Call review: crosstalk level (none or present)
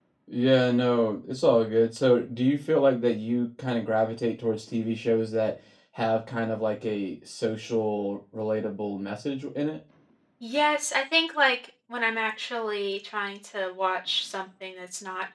none